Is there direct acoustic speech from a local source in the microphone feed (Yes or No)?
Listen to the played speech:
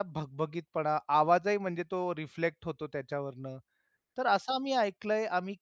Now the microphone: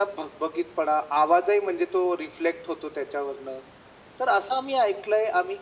No